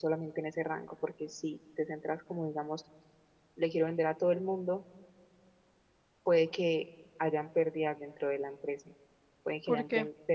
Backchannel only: Yes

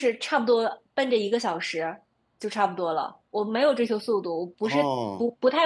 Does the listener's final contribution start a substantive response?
No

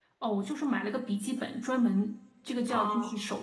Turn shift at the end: No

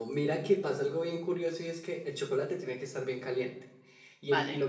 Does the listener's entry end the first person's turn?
No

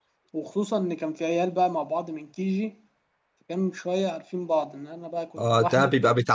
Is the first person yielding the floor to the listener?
Yes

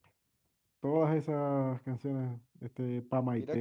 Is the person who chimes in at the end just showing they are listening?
No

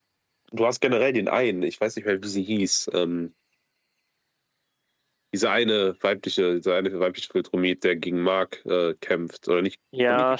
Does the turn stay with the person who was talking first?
No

